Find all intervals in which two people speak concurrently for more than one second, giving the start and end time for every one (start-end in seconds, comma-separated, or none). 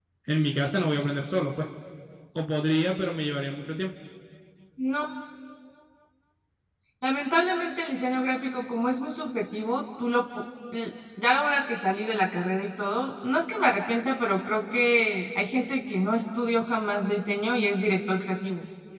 none